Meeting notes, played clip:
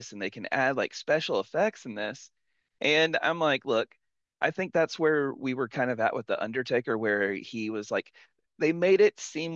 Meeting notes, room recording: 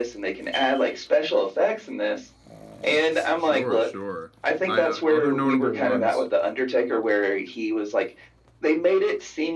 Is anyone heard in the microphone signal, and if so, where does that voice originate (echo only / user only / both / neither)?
both